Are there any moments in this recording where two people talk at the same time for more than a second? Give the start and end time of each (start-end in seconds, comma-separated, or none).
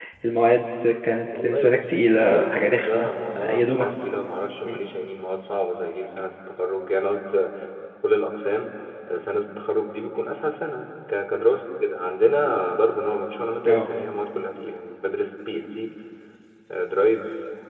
1.4-3.8